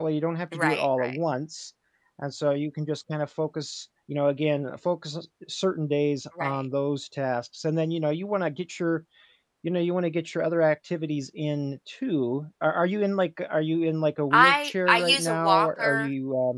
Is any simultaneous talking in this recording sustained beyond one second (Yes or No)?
Yes